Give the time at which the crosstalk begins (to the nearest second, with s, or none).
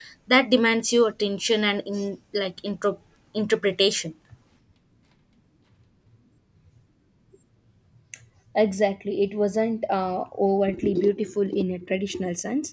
none